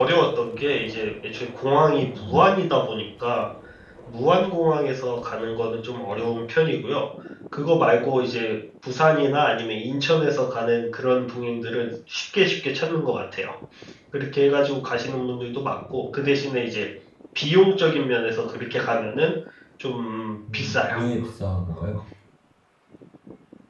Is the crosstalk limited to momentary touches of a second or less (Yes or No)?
Yes